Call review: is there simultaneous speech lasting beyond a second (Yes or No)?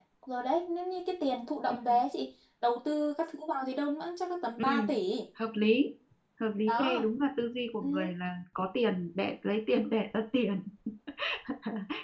No